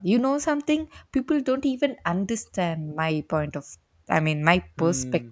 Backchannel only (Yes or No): No